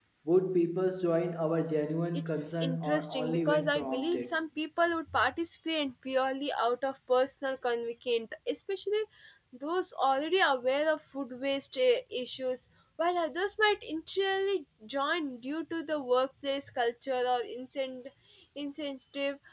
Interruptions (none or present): present